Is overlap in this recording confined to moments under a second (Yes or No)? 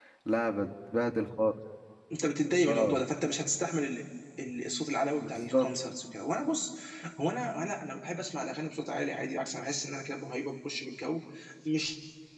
Yes